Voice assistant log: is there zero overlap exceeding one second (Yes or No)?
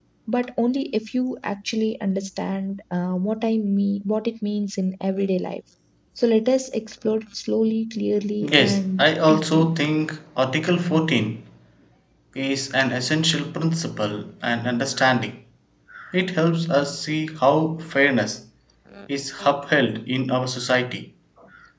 No